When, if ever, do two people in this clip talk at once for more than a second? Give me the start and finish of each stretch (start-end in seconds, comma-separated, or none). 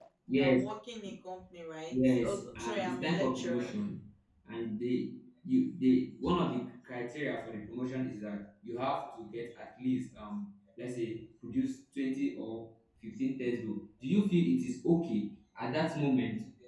1.9-3.7